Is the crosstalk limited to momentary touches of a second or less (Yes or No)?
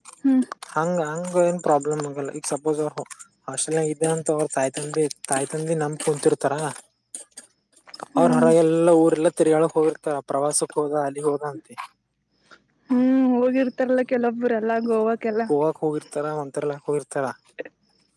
Yes